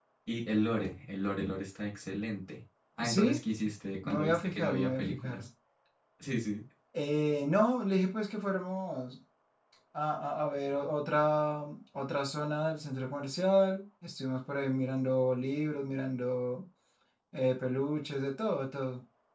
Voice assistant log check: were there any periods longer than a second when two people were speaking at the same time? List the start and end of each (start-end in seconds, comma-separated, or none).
4.0-5.4